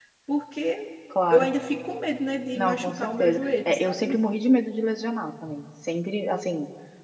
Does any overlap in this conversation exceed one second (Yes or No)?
Yes